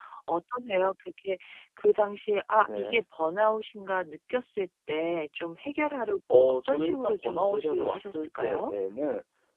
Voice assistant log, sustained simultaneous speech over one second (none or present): present